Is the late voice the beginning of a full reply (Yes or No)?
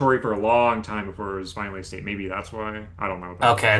Yes